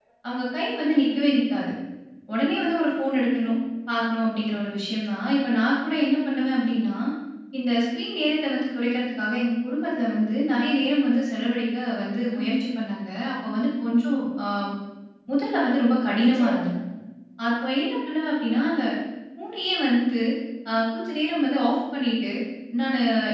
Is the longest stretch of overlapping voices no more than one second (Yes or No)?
Yes